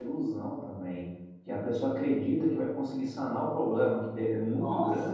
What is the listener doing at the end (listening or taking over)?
listening